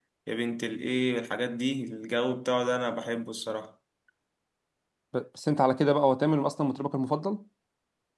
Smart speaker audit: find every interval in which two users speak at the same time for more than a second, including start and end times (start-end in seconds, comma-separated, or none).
none